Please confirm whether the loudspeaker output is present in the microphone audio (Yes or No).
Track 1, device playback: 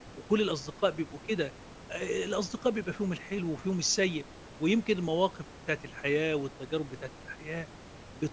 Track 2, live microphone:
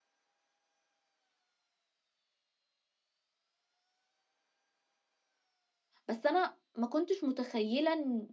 No